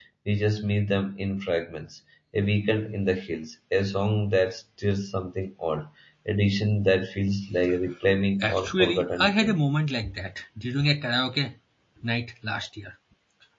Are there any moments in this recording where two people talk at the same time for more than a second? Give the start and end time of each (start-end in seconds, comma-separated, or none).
8.4-9.6